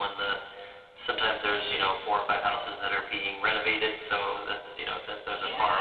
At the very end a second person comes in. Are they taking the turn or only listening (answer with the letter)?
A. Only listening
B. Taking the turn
A